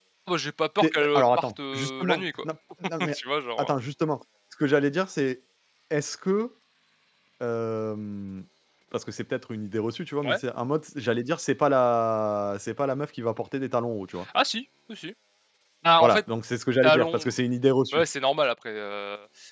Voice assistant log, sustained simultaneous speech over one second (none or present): present